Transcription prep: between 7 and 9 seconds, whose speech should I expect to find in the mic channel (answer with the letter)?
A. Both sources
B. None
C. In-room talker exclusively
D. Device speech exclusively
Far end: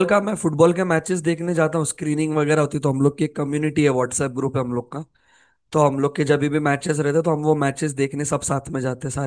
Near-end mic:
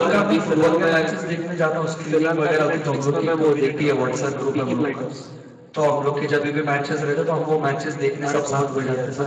A